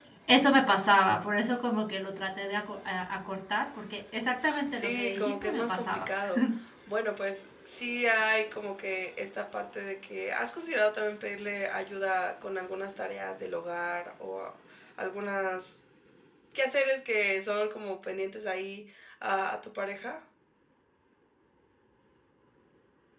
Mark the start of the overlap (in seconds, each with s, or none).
4.4 s